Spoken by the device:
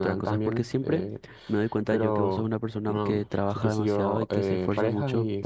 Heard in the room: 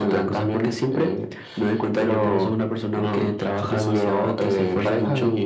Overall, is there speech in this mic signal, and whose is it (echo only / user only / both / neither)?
echo only